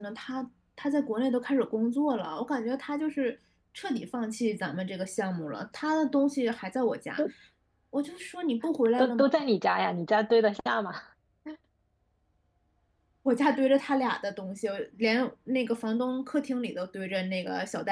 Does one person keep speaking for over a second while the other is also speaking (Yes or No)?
No